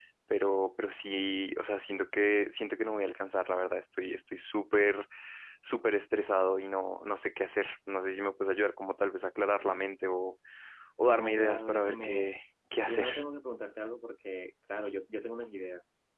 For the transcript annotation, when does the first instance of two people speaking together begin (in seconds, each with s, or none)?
11.1 s